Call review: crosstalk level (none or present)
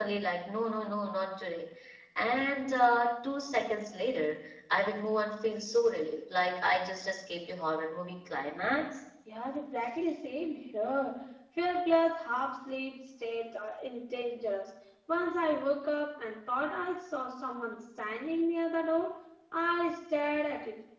none